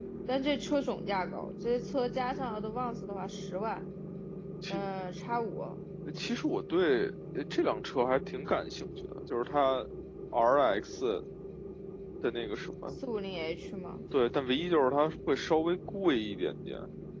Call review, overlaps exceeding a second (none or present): none